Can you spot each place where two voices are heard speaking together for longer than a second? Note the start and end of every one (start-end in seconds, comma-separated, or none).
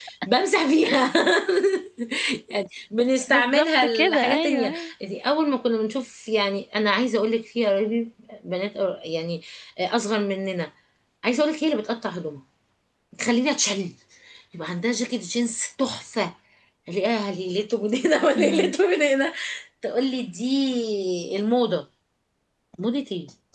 3.3-4.9